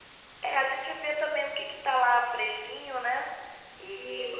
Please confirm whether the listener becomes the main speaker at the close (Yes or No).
Yes